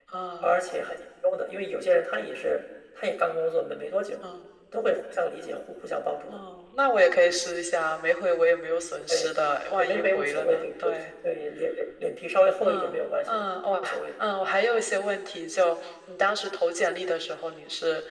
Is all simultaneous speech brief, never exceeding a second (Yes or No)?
No